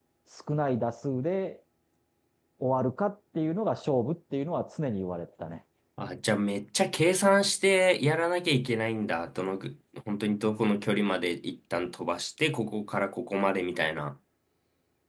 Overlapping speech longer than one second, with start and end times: none

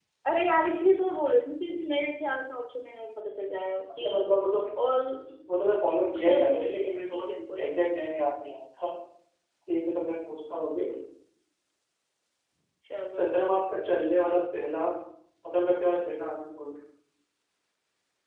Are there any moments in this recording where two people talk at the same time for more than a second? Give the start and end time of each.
6.2-7.7

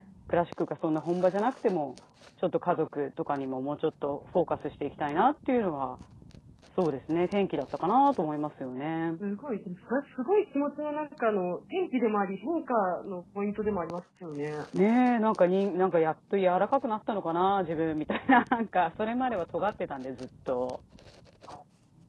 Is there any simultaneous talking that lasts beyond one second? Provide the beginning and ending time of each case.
none

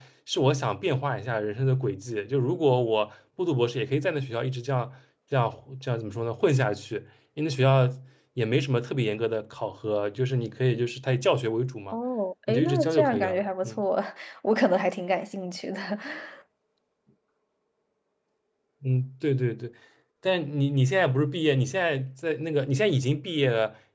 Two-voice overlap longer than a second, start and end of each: 12.5-13.8

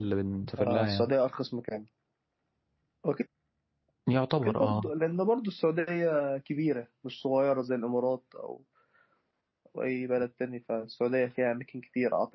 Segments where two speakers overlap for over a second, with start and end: none

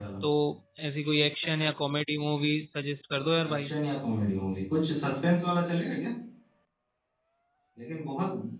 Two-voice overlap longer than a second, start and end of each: none

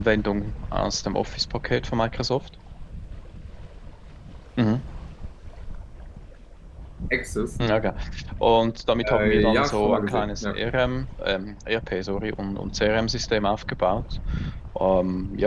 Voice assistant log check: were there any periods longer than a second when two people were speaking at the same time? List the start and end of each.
9.0-10.6

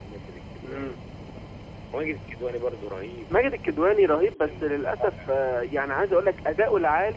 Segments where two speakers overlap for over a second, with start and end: 4.1-5.3

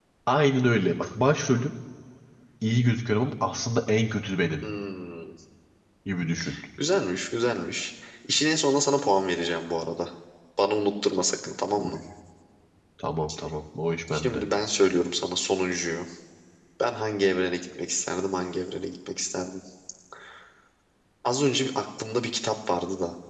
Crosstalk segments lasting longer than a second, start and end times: none

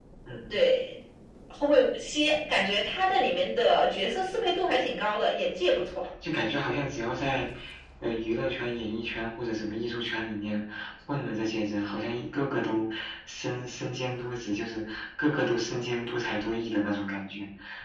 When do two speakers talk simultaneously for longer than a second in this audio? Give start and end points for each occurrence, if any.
none

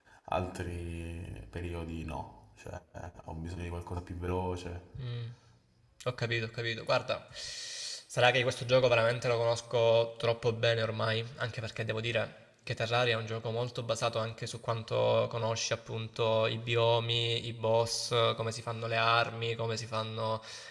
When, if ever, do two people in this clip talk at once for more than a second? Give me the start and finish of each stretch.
none

